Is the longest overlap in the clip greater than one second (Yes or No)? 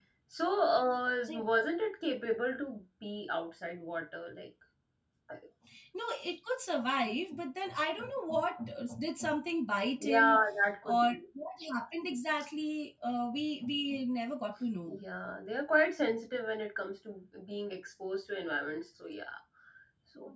No